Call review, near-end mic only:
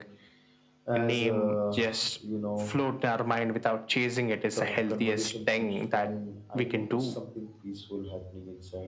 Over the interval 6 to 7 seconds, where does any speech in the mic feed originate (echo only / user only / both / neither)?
both